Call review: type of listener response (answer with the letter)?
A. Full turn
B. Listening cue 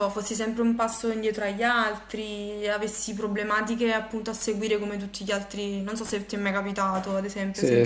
A